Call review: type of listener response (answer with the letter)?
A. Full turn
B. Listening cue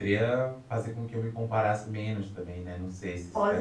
A